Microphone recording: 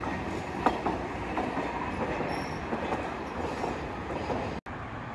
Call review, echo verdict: none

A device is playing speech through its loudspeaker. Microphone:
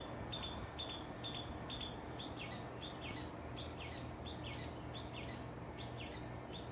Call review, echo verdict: none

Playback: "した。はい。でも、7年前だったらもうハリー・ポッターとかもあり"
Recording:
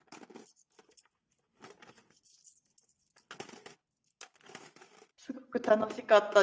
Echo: none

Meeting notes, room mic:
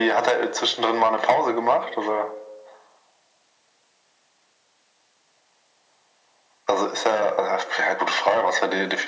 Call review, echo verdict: present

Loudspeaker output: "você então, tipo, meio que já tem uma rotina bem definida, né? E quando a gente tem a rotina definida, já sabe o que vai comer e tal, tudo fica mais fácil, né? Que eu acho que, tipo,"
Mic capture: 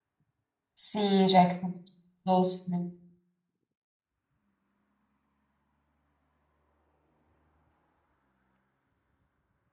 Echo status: none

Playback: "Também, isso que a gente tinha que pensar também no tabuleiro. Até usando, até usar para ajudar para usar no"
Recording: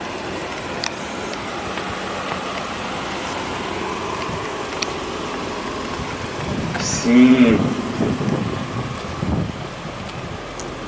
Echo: none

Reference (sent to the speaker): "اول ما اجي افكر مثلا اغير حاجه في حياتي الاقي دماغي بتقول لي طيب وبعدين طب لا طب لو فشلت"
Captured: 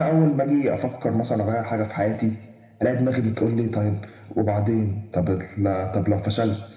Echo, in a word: present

